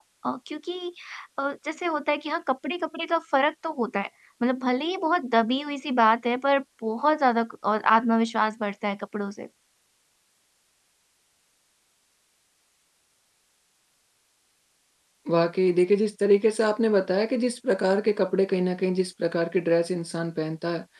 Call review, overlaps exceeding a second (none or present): none